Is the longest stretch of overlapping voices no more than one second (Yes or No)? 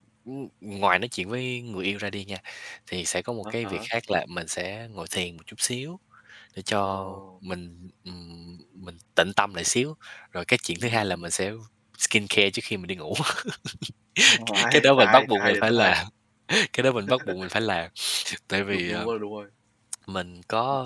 No